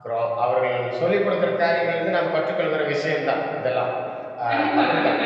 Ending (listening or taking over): taking over